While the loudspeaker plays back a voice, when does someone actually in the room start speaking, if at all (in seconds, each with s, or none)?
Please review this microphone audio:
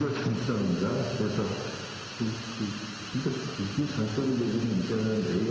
none